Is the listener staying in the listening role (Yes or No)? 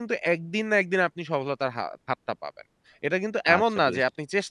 Yes